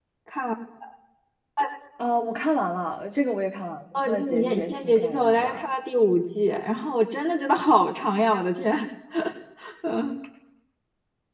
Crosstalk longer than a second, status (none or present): present